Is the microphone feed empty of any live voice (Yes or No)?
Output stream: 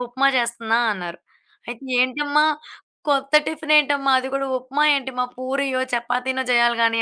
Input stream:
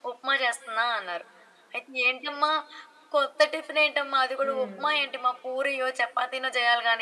No